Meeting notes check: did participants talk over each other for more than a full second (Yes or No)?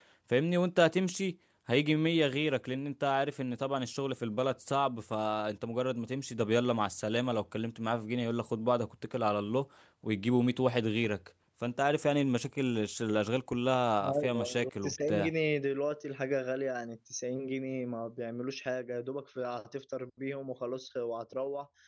Yes